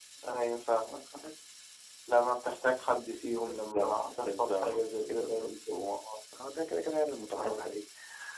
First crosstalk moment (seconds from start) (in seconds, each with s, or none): 3.3 s